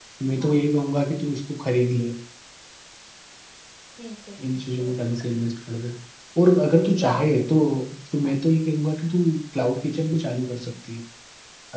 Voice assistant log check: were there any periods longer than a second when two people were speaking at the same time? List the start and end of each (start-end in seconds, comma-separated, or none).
none